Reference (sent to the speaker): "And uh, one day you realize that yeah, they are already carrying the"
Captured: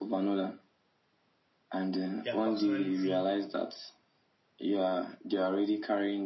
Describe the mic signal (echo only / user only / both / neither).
both